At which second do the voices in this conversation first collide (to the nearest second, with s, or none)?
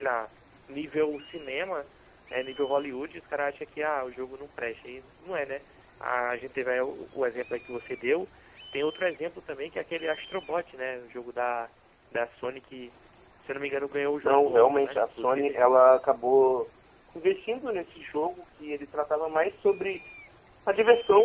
14 s